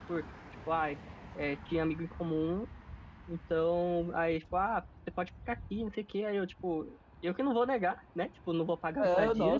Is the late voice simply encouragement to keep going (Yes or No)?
No